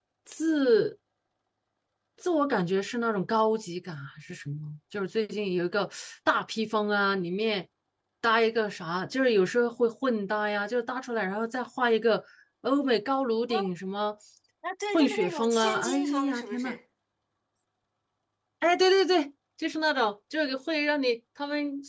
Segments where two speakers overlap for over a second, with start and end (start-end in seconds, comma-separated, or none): 14.9-16.8